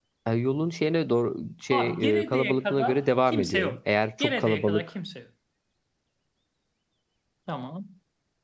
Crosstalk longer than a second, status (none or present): present